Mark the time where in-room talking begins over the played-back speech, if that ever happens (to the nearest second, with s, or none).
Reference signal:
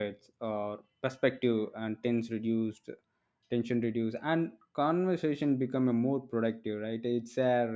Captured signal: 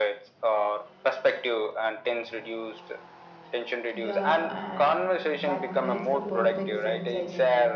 4 s